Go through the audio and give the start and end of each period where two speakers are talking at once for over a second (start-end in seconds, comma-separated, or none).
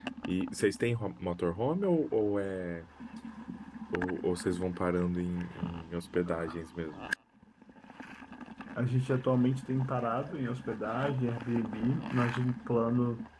none